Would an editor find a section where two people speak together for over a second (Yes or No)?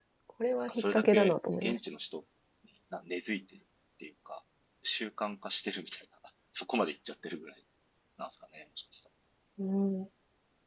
Yes